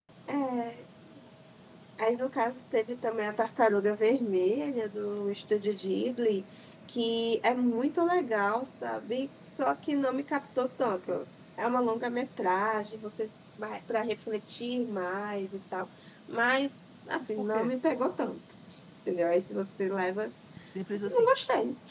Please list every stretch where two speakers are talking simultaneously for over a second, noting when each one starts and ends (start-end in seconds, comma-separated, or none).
none